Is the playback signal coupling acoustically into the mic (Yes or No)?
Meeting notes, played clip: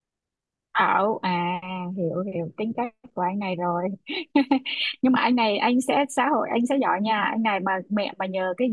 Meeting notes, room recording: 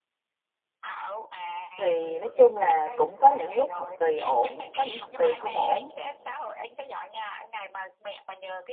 Yes